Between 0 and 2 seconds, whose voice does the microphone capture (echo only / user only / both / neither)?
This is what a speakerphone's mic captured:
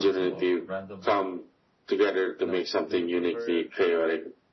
both